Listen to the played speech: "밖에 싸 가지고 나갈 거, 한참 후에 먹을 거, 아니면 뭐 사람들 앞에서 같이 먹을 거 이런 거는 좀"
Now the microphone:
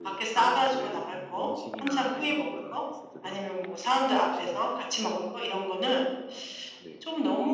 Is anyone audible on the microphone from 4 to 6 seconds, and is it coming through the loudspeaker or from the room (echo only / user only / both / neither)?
both